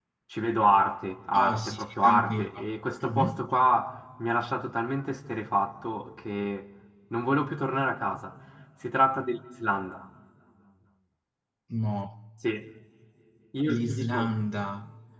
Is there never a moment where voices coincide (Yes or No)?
No